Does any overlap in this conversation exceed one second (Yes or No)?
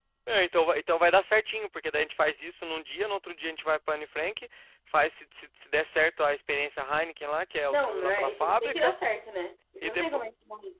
Yes